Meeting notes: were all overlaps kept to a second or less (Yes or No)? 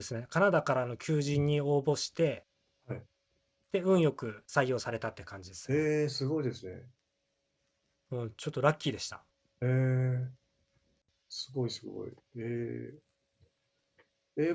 Yes